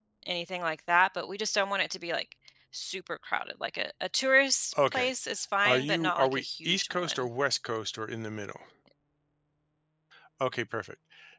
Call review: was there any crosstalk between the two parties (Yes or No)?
Yes